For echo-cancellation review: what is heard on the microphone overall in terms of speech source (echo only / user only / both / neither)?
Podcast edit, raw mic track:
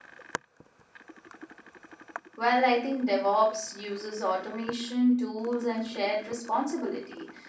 user only